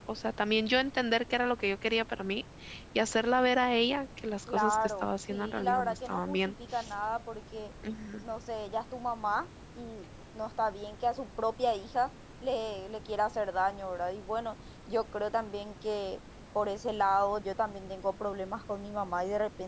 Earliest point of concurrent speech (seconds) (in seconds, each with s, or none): 4.5 s